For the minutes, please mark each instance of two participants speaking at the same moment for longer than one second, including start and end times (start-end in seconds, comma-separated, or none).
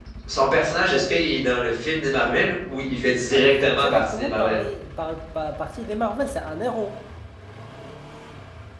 3.3-4.6